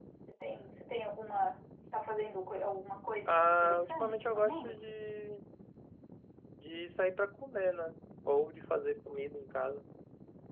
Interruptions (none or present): present